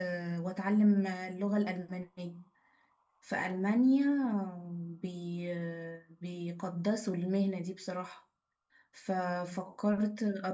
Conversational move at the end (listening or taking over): listening